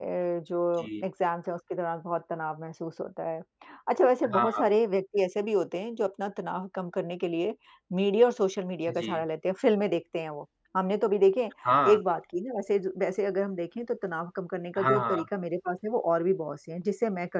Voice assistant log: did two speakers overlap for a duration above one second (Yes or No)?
No